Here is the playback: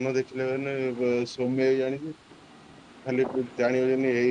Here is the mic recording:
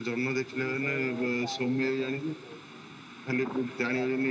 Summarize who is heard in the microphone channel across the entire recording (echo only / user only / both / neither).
both